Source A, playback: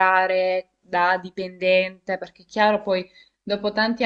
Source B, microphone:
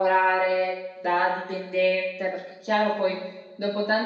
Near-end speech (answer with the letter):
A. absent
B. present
A